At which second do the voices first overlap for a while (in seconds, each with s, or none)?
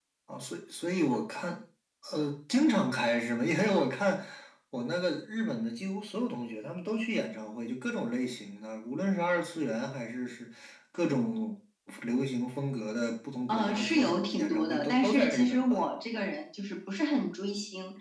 13.5 s